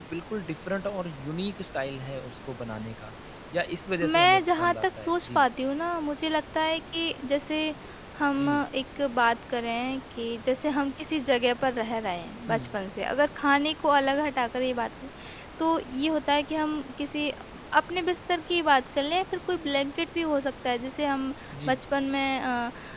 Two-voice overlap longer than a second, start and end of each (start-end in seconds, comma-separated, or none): 4.0-5.4